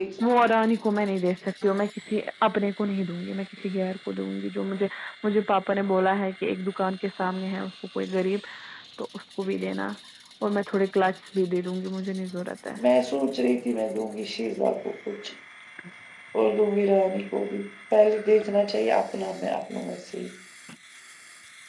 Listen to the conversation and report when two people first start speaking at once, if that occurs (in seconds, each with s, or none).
none